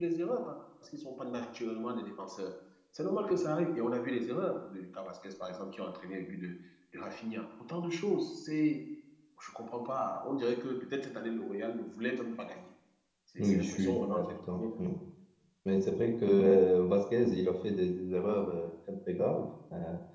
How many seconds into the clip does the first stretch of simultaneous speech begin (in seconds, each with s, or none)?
13.4 s